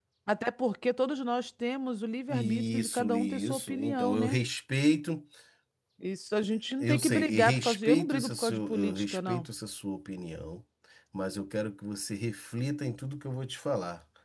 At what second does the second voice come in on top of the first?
2 s

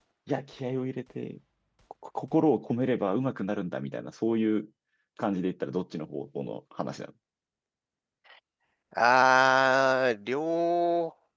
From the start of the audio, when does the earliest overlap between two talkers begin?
none

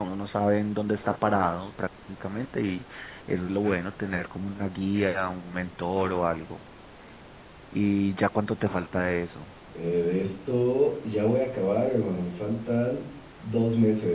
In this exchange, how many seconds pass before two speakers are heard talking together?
none

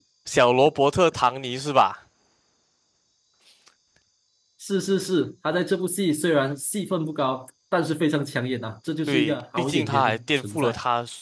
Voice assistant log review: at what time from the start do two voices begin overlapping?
9 s

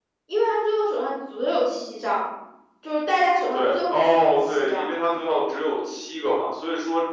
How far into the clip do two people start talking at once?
4 s

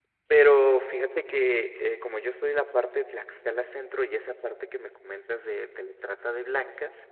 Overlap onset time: none

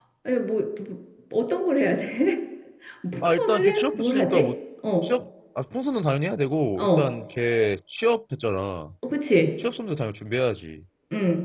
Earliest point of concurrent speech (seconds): 3 s

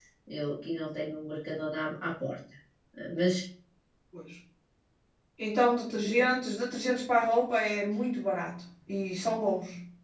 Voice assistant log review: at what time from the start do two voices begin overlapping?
none

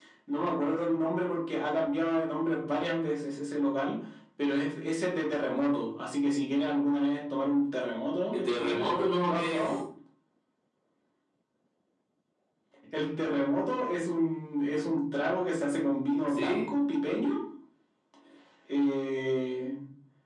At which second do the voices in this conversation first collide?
8 s

